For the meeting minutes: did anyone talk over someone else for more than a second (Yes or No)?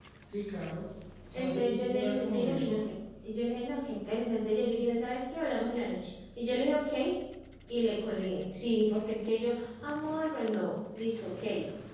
Yes